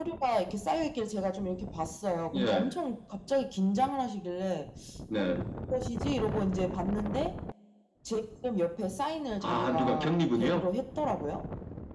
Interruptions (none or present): present